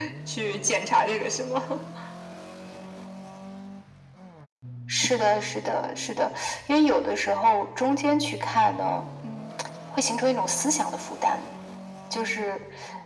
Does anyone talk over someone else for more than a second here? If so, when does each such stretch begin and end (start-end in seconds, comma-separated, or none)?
none